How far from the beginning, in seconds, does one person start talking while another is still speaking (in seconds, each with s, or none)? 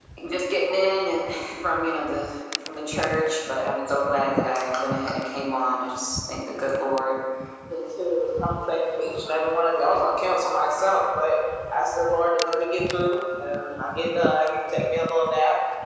none